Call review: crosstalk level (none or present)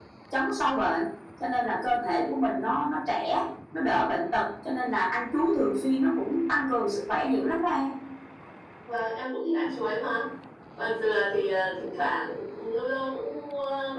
none